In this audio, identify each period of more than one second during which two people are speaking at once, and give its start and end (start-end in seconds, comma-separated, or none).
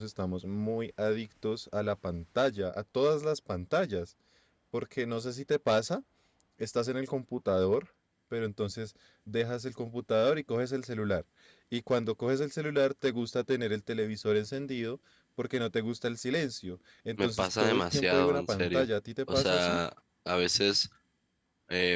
17.2-18.9